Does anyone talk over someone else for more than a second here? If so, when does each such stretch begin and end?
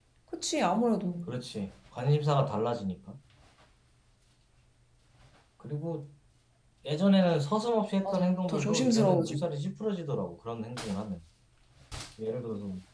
8.0-9.4

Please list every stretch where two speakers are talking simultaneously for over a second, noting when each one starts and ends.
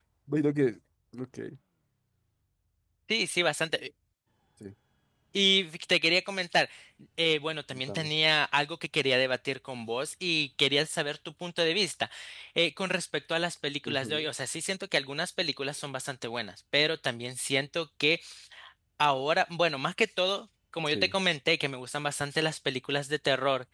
none

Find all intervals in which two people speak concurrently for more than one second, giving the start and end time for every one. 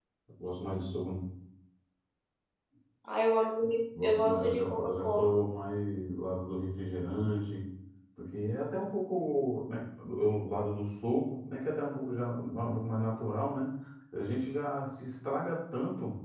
4.0-5.3

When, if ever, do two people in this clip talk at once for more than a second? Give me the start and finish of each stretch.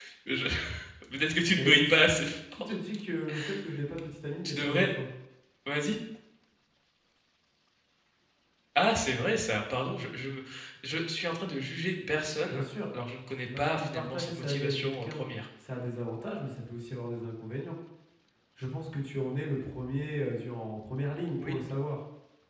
13.6-15.2

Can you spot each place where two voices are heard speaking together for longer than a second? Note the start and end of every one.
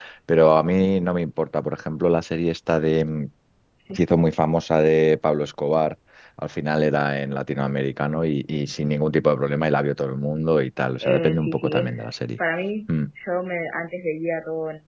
11.0-12.4

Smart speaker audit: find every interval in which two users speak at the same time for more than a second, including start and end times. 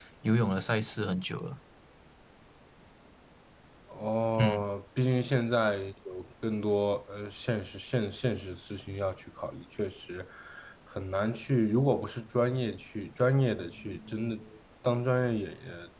none

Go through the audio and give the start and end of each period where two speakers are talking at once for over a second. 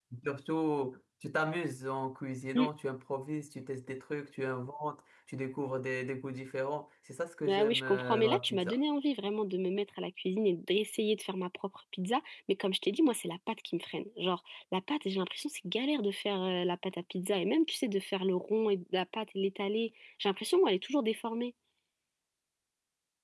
7.5-8.8

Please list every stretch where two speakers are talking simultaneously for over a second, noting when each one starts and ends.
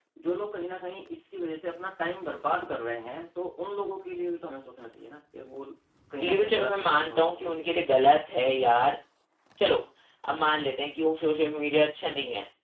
6.2-7.9

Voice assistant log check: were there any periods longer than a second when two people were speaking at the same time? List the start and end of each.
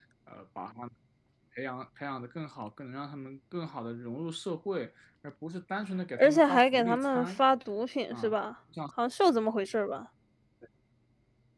6.2-7.4

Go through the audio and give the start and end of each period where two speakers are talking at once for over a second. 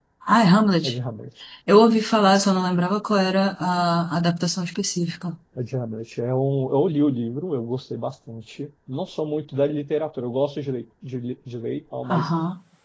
none

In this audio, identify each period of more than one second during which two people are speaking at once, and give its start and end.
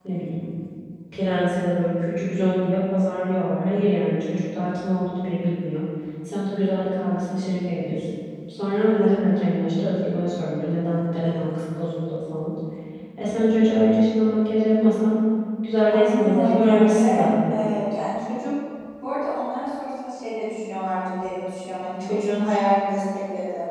15.9-17.6

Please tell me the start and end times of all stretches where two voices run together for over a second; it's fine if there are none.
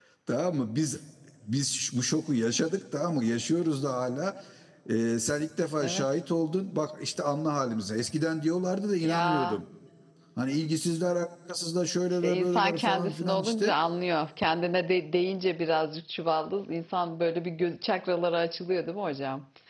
12.1-13.7

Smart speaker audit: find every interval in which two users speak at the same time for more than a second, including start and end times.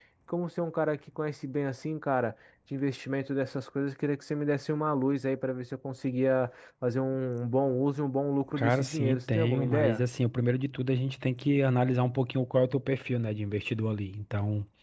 8.6-10.0

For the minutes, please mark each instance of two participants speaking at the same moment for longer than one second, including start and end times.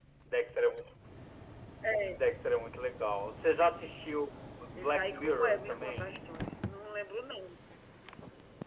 4.8-6.1

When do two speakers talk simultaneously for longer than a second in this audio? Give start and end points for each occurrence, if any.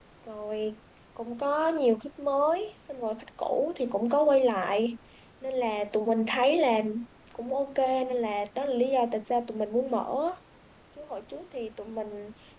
none

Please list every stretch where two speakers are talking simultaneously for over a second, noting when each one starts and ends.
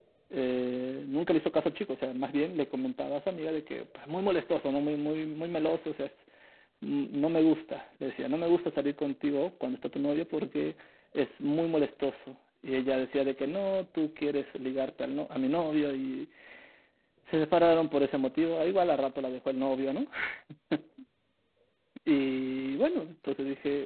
none

